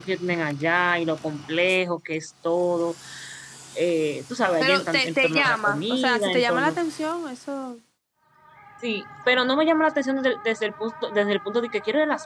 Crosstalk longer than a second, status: present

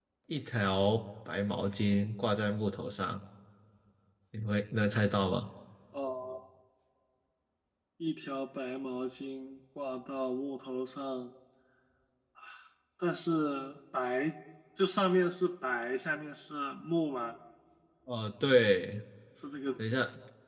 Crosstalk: none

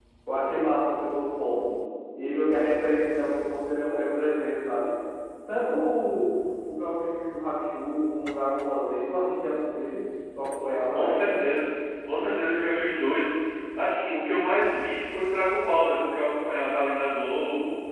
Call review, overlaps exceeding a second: none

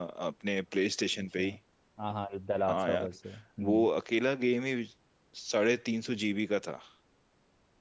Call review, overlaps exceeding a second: none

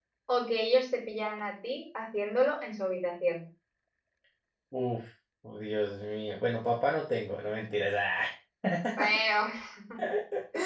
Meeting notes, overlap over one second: none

